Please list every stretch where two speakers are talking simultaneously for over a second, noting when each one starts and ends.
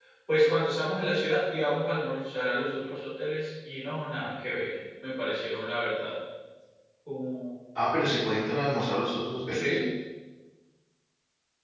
none

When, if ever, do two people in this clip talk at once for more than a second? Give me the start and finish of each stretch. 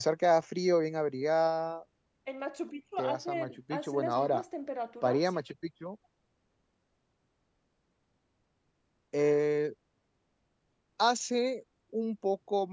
3.0-4.4

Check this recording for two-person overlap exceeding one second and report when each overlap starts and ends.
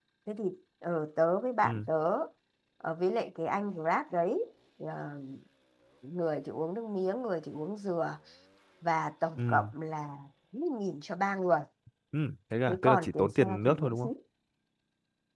12.7-14.1

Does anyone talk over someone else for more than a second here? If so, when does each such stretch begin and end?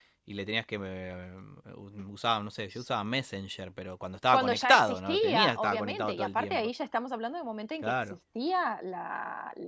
4.3-6.7

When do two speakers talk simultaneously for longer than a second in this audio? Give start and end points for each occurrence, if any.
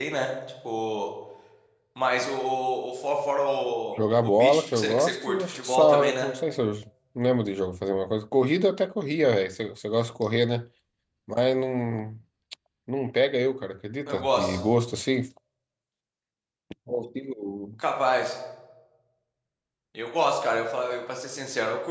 4.2-6.3

